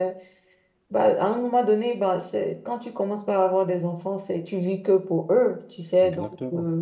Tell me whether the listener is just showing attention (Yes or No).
Yes